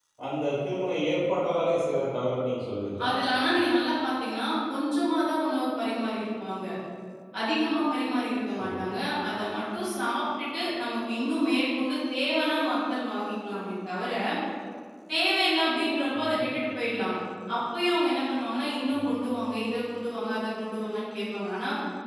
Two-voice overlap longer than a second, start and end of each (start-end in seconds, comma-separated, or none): none